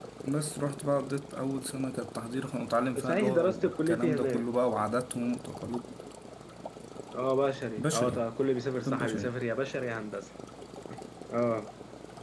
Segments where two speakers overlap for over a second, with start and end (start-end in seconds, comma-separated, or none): 3.0-4.4